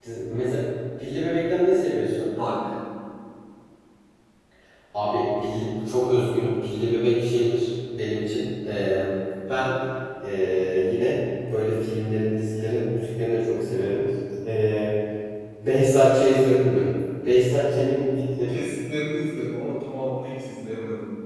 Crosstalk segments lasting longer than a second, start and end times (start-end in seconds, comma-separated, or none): none